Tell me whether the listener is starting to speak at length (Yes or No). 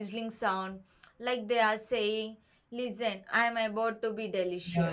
Yes